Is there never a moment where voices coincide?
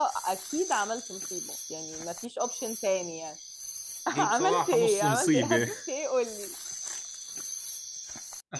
No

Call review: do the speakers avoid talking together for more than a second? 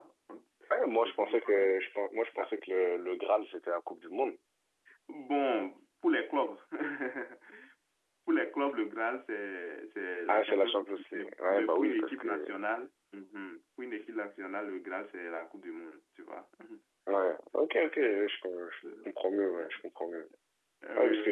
No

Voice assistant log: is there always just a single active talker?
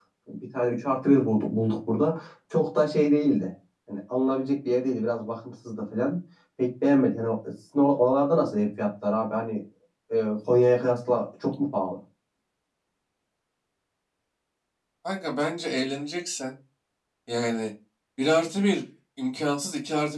Yes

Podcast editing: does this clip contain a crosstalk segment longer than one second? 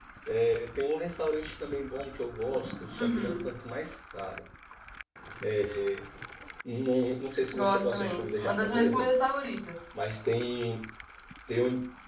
Yes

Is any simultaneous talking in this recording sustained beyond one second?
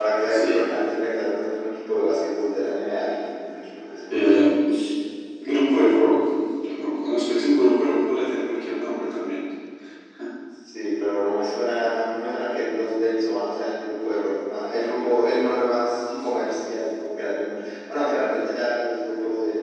No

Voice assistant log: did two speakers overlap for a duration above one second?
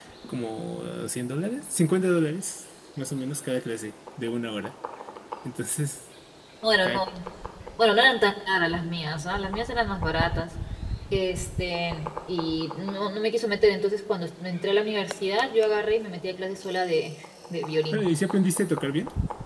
No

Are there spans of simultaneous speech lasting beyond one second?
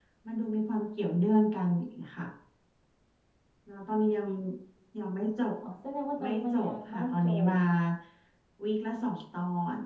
Yes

